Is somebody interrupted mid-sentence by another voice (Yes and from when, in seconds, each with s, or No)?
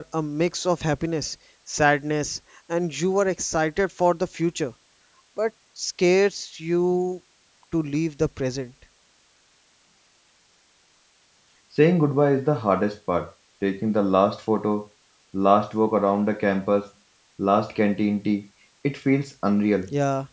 No